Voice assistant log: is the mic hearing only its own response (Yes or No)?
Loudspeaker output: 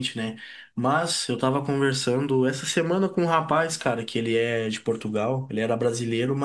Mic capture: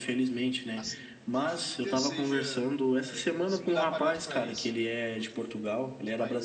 No